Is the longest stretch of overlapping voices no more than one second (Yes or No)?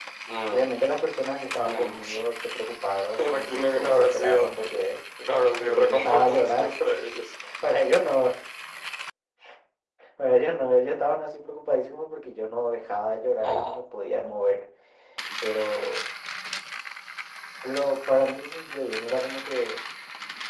No